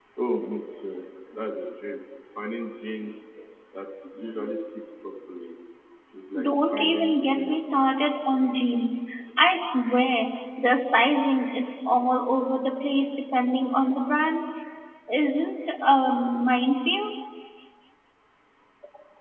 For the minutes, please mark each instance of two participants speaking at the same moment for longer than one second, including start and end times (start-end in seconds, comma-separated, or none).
6.4-7.9